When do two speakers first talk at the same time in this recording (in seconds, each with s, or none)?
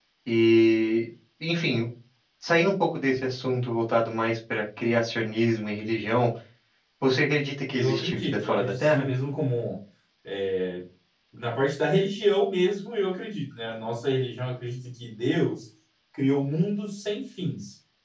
7.7 s